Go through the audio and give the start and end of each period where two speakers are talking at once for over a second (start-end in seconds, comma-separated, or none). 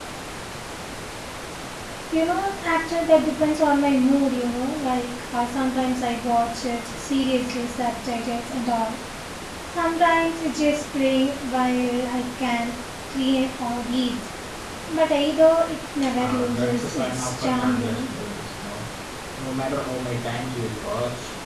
16.2-18.1